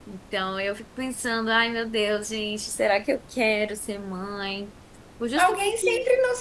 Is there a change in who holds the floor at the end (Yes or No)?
Yes